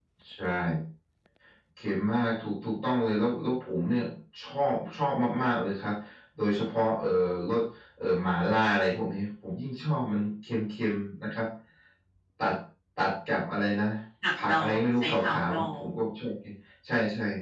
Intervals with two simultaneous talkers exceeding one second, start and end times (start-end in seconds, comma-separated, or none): 14.4-15.8